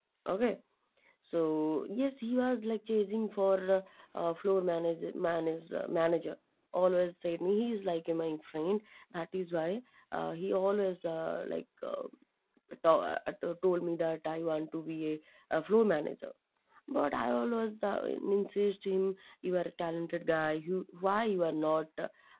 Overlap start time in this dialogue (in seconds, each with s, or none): none